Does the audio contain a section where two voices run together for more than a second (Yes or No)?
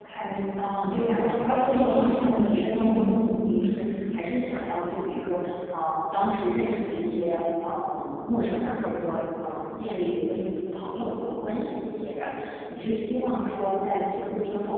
Yes